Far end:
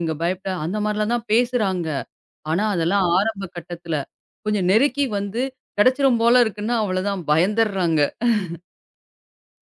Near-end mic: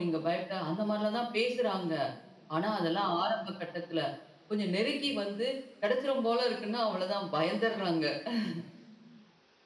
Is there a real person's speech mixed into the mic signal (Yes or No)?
No